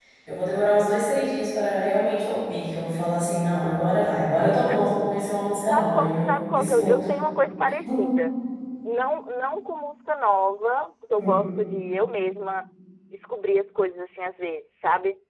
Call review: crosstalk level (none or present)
present